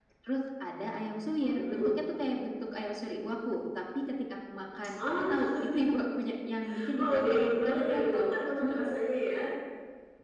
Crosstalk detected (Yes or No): Yes